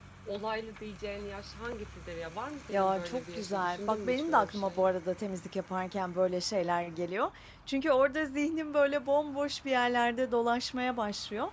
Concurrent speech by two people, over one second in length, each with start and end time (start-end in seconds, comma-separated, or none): 2.7-4.9